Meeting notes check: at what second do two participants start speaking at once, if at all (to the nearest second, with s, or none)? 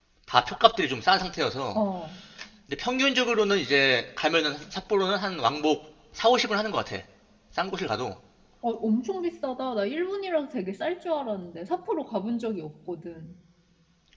none